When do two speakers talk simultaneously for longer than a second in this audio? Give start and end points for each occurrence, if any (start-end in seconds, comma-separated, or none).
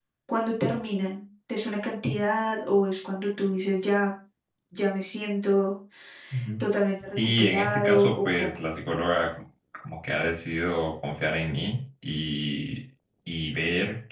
7.2-8.5